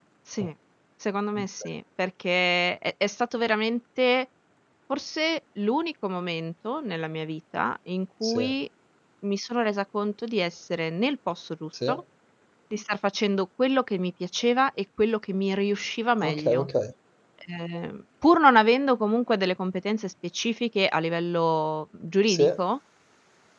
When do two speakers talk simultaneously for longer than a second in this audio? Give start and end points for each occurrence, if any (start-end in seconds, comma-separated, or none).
none